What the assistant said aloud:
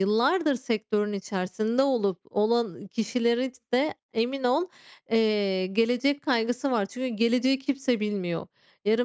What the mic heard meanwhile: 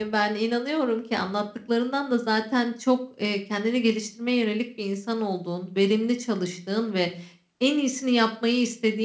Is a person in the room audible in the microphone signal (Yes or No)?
Yes